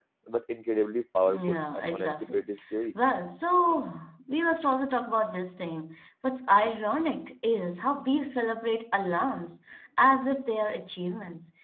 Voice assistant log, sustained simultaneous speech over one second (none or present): present